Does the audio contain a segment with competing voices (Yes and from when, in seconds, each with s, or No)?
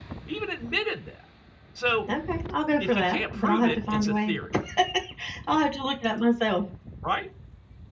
Yes, from 2.8 s